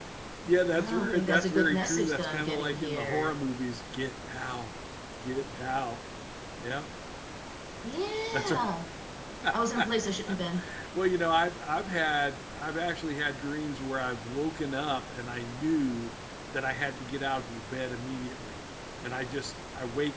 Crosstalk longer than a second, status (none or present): present